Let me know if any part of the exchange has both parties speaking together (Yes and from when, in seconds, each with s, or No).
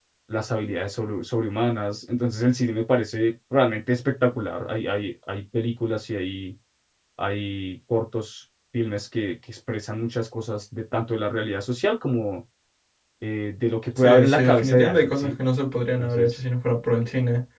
Yes, from 14.0 s